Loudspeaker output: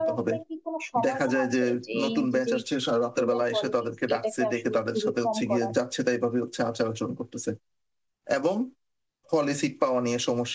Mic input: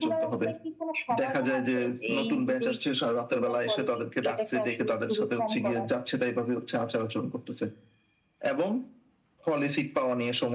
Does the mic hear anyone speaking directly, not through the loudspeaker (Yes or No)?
No